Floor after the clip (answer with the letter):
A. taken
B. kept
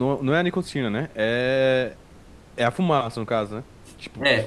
A